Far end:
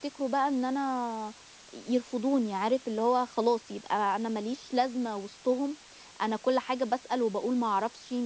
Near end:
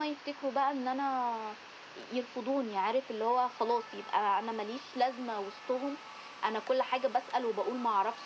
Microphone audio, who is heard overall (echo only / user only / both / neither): echo only